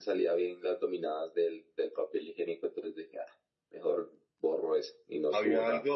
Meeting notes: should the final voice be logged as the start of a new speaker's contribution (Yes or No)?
Yes